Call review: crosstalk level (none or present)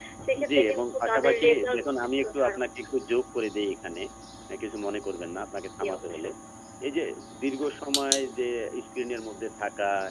present